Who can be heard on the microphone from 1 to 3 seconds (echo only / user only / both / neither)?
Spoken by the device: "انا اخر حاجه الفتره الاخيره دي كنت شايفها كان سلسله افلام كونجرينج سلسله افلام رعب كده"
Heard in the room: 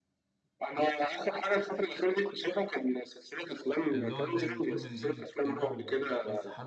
echo only